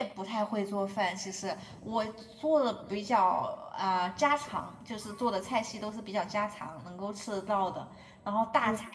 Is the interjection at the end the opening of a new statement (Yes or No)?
No